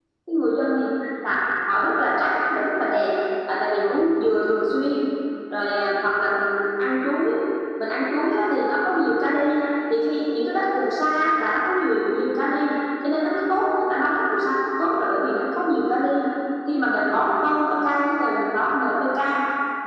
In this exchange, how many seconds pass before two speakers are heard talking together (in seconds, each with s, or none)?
none